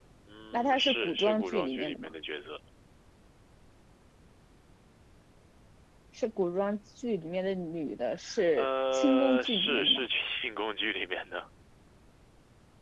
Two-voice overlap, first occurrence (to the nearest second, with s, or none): 1 s